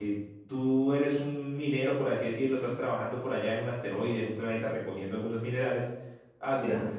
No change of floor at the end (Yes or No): Yes